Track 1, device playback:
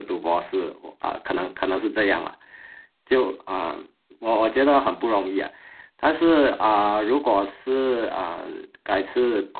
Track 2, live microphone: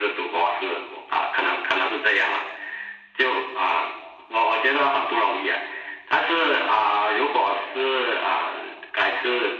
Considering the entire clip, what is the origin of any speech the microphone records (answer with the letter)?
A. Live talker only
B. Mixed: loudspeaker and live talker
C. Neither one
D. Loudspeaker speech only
D